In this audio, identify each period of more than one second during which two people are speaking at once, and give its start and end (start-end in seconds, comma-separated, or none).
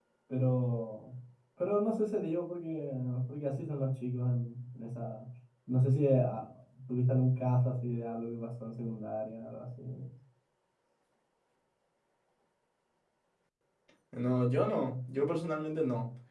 none